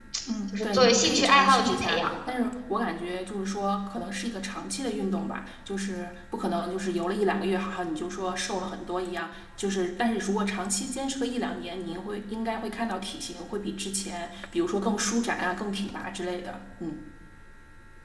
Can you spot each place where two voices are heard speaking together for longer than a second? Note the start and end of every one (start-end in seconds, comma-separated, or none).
0.5-2.1